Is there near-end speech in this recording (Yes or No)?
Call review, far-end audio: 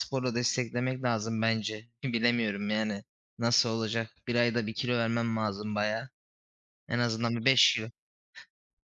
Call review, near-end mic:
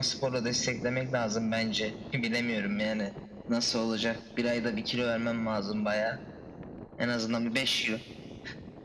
No